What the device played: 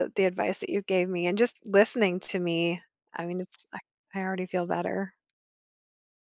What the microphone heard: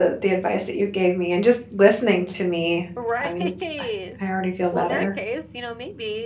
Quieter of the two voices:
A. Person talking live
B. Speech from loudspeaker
A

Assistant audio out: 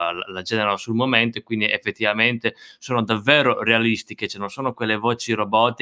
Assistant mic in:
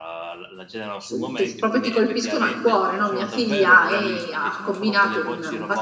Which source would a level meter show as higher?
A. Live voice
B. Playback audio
A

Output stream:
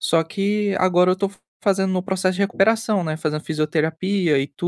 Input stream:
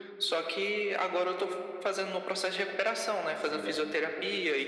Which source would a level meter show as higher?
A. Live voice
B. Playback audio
B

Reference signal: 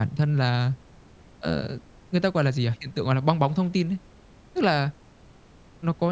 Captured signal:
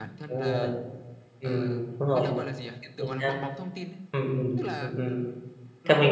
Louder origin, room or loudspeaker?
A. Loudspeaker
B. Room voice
B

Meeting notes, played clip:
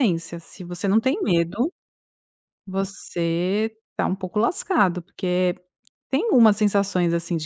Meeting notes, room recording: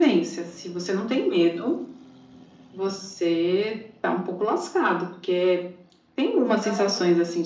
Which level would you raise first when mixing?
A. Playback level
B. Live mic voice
B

